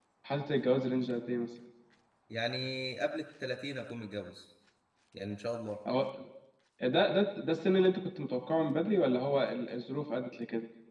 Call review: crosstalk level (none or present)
none